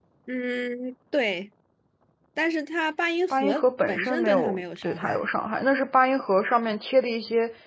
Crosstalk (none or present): present